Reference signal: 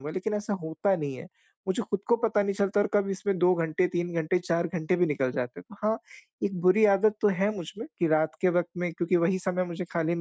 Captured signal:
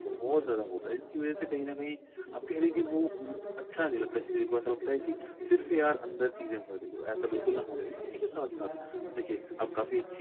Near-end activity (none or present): present